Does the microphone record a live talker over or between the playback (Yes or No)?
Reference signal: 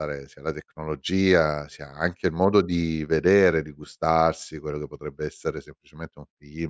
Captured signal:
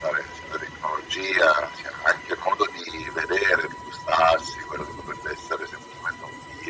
No